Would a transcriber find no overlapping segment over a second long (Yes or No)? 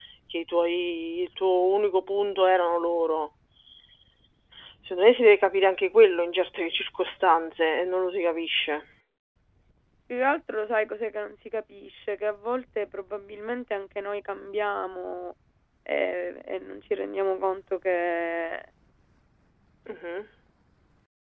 Yes